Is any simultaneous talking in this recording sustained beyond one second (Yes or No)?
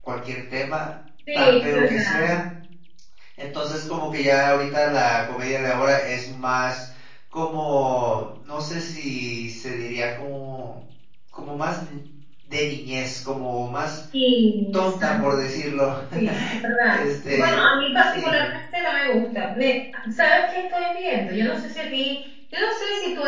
Yes